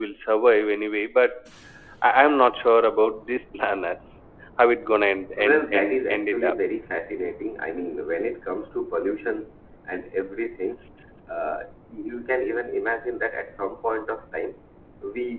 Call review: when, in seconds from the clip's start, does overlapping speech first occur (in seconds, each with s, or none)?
5.4 s